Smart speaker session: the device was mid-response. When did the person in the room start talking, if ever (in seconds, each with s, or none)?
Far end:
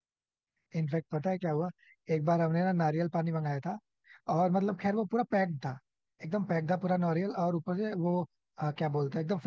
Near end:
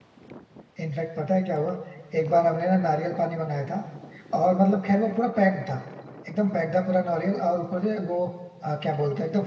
none